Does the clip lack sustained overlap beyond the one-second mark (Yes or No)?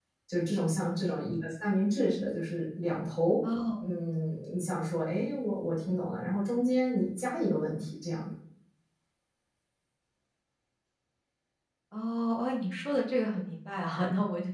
Yes